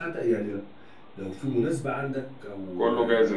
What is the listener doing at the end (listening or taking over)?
listening